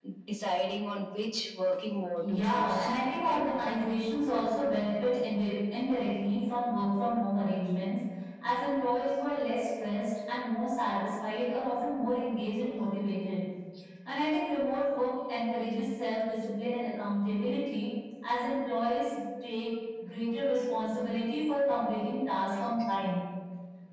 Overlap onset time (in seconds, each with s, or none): 2.2 s